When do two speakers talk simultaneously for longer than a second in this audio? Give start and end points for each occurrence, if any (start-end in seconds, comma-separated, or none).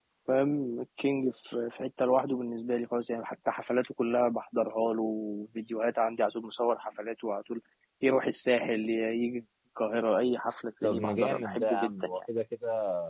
10.8-12.2